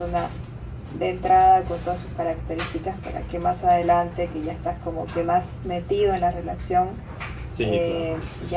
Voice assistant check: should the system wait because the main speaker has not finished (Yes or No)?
Yes